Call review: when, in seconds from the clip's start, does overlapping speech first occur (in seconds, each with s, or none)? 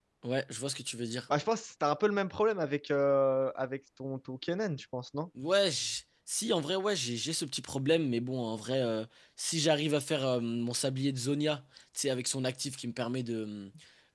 none